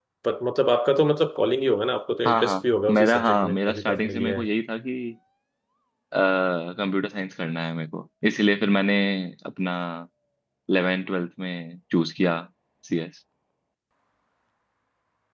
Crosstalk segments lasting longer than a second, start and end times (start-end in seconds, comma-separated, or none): 2.9-4.5